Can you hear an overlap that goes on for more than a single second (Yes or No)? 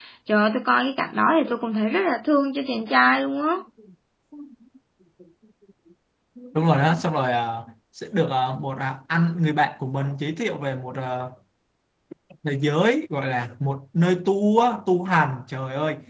No